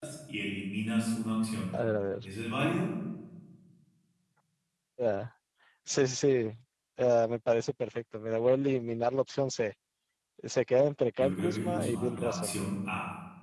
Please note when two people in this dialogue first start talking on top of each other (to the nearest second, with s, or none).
11 s